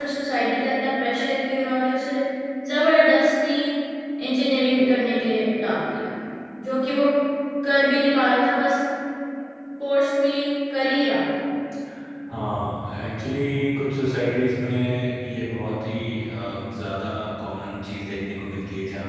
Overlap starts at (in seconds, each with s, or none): none